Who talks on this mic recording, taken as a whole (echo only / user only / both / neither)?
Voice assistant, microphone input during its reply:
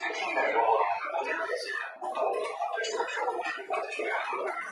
echo only